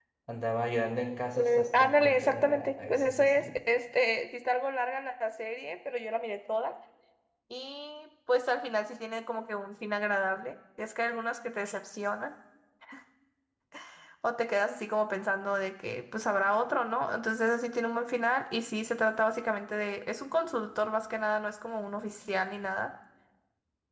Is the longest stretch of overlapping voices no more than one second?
No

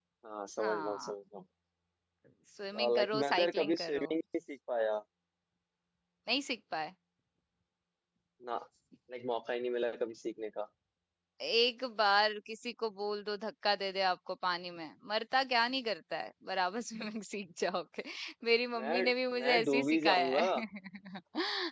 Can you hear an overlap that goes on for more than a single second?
Yes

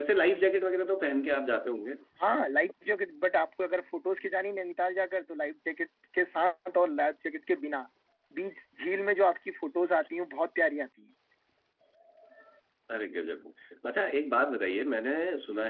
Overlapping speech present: No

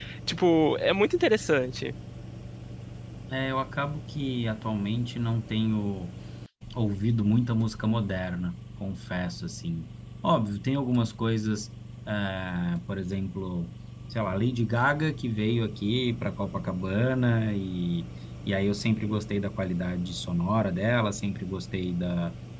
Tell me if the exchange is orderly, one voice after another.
Yes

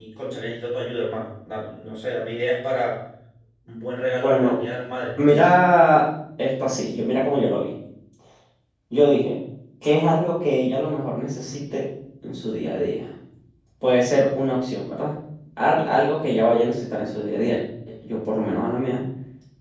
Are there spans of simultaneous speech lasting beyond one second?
No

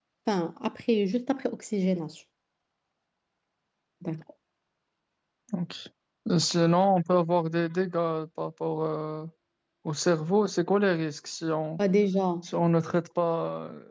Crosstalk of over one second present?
No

